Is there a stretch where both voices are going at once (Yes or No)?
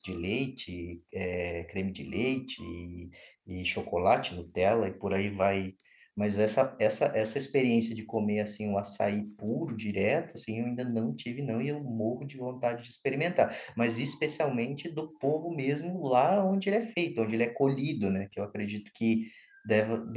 No